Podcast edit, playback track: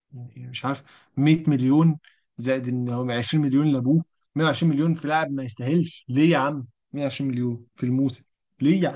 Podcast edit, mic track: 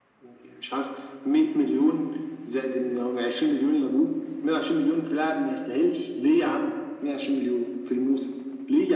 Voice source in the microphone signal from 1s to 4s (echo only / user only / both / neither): echo only